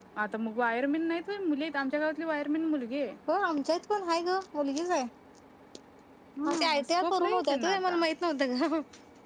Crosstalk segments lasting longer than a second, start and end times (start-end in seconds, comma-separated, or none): 6.5-8.0